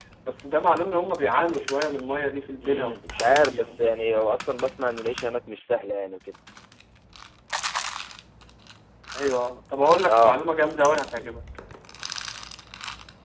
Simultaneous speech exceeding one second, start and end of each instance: 2.6-4.0

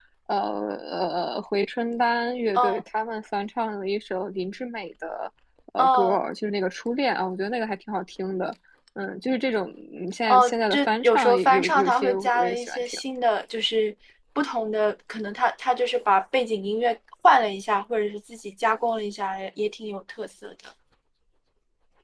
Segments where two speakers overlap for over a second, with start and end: 10.3-13.0

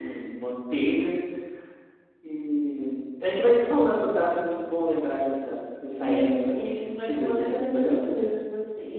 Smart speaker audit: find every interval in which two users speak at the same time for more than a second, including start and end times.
6.0-8.1

